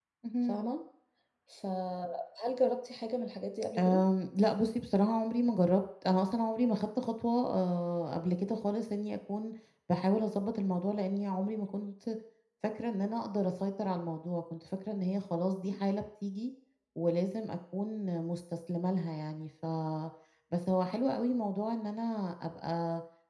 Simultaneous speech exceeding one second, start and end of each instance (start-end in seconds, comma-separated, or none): none